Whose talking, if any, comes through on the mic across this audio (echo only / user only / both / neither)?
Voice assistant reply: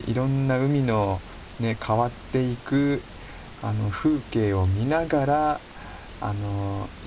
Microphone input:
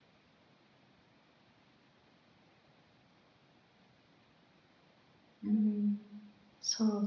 user only